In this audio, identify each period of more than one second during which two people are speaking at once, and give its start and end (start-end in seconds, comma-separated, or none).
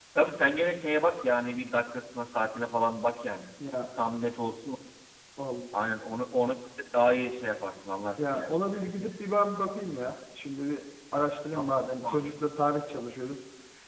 none